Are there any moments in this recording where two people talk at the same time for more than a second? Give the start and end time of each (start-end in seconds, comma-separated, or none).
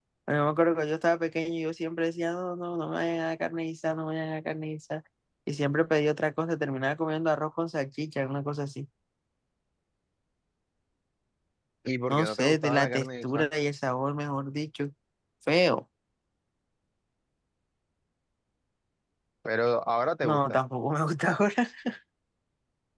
12.1-13.5